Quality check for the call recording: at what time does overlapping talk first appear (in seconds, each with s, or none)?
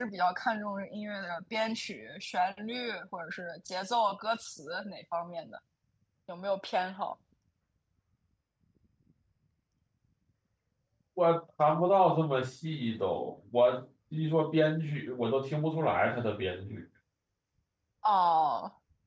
none